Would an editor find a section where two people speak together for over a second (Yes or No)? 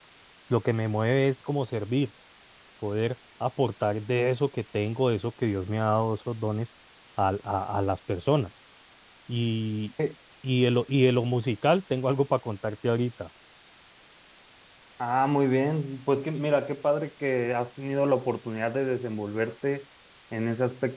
No